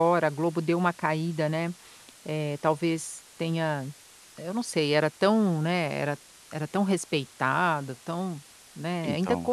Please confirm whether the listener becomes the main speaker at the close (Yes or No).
No